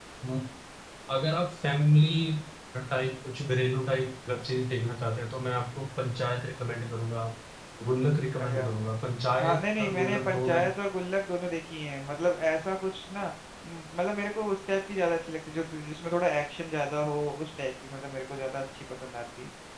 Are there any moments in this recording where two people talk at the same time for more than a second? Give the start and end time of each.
9.4-10.7

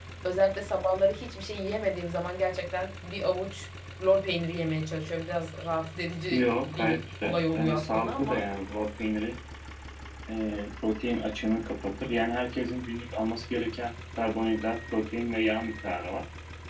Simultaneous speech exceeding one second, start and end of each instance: 6.3-8.4

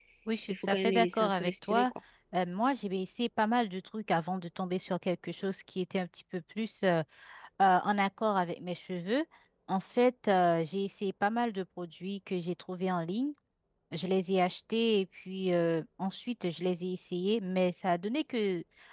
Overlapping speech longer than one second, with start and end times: 0.5-1.9

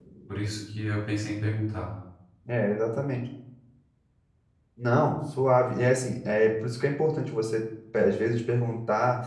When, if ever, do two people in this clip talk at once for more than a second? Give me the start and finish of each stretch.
none

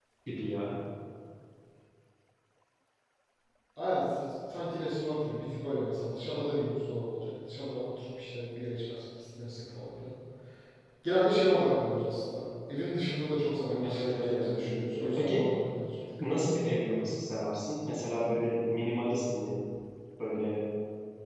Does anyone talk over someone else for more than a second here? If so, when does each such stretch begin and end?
13.8-15.4

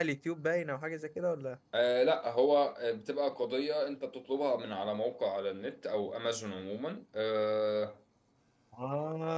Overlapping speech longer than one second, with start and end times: none

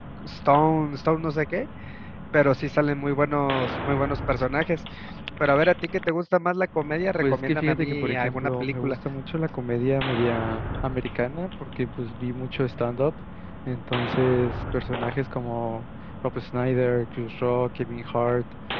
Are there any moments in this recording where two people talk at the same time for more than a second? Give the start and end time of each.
7.2-8.9

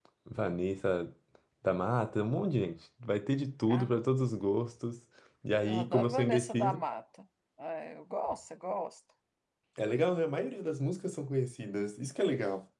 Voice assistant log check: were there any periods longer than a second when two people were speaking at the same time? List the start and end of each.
5.6-6.8

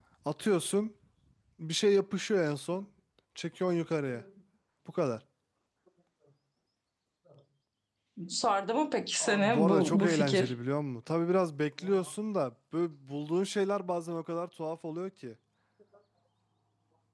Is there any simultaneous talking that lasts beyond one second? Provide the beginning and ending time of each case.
9.2-10.5

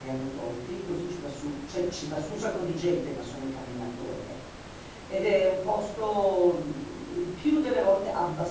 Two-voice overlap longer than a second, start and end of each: none

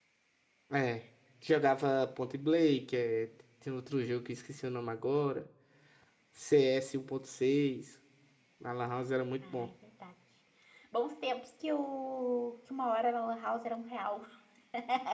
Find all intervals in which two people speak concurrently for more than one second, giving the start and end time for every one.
none

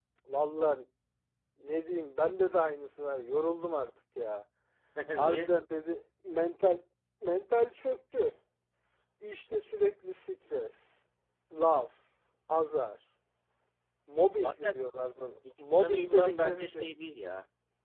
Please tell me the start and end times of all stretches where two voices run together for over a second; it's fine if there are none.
15.6-16.9

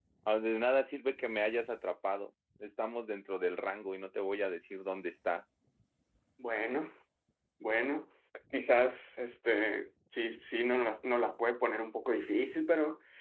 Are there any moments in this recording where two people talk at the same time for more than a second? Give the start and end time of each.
none

